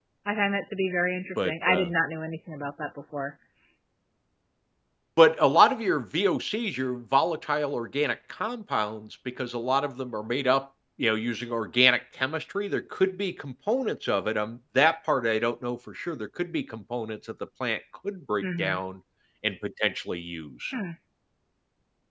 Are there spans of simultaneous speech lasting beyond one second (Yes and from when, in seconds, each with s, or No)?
No